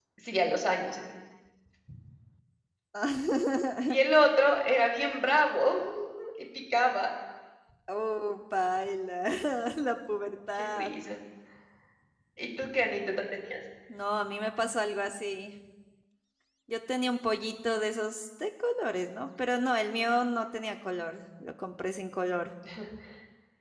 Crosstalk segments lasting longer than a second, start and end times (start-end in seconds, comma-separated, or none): none